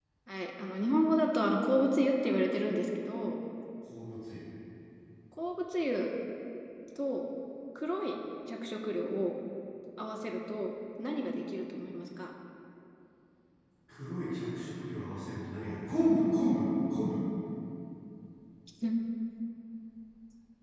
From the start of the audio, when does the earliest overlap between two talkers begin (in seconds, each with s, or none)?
none